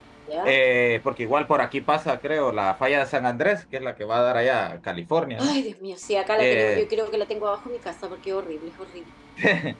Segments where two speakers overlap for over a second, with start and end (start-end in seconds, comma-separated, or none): none